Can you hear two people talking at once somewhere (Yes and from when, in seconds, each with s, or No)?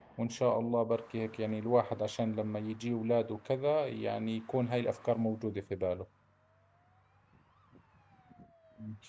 No